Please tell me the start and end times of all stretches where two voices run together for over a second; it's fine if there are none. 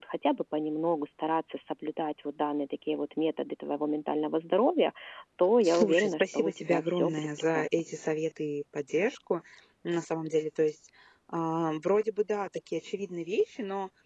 5.6-7.7

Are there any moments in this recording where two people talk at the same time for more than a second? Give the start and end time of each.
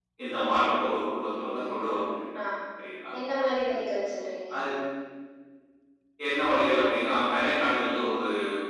none

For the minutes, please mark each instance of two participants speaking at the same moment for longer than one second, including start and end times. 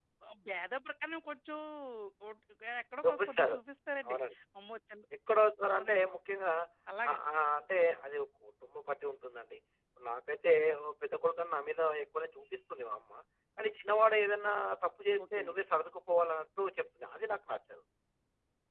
none

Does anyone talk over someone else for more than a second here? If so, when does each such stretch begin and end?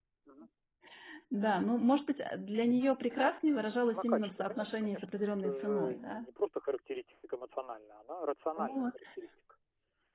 3.9-6.2

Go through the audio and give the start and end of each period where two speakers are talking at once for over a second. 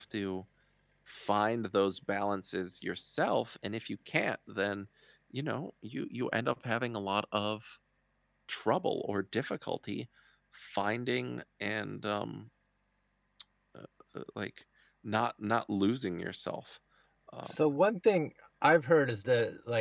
none

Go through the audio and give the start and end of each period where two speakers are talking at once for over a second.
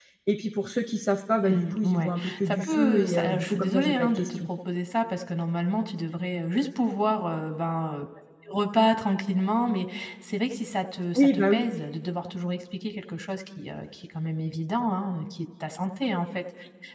1.5-4.4

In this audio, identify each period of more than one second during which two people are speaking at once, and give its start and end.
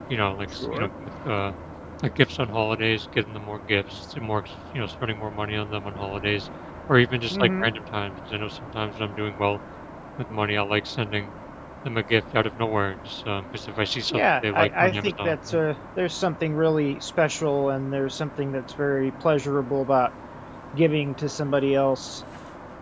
14.1-15.3

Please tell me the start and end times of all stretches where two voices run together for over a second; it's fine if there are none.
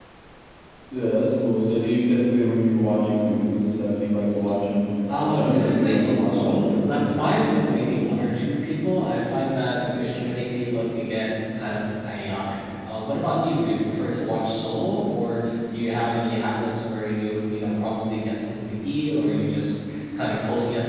5.2-7.5

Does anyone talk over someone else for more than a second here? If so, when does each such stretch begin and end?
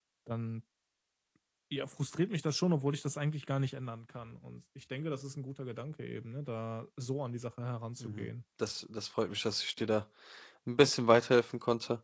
none

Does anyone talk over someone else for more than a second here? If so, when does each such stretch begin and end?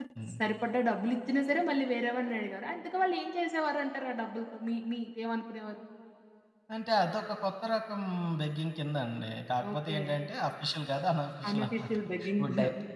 none

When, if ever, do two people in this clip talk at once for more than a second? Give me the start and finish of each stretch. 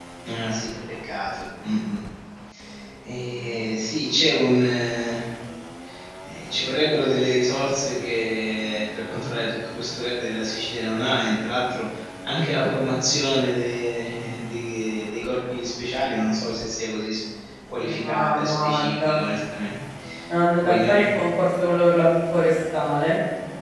17.8-19.1

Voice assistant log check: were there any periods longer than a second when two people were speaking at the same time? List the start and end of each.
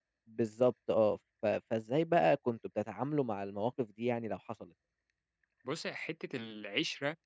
none

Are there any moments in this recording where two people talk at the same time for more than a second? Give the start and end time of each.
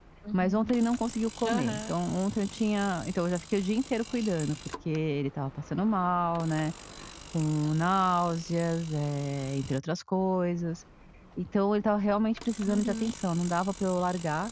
none

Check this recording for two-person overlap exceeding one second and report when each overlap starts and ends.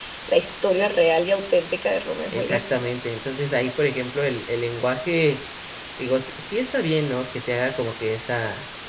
none

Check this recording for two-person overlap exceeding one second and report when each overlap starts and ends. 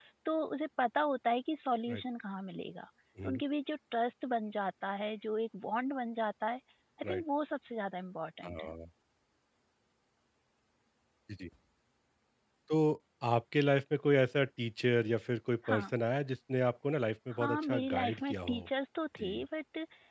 17.3-18.7

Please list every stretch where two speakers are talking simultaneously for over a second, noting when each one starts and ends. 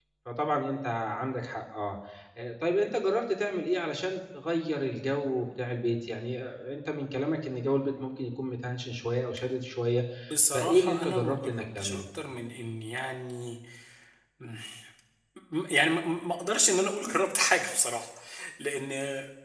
10.5-12.0

